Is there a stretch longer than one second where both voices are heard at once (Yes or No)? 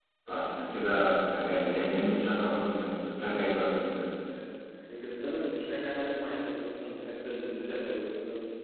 No